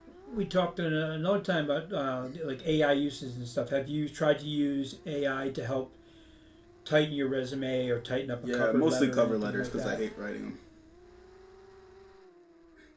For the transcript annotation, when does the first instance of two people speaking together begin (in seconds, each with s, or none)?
8.4 s